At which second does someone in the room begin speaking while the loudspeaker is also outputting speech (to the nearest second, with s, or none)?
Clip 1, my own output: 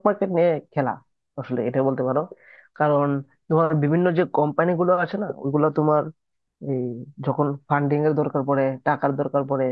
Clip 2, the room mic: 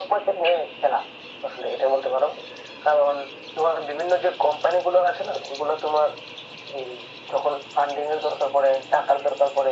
none